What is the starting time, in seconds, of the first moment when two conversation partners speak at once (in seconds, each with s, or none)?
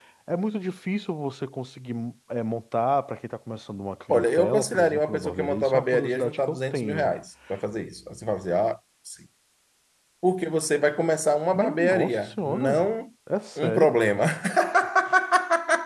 4.1 s